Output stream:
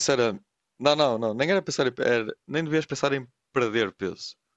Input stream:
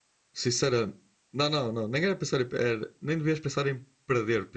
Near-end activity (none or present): none